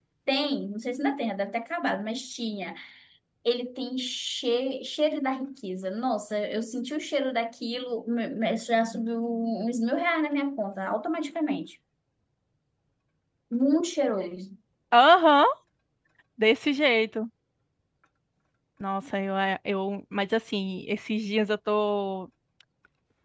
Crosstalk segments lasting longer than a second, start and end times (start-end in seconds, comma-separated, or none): none